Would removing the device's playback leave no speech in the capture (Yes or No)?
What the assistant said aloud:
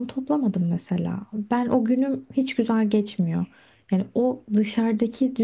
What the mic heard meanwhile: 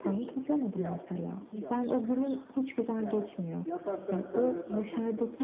No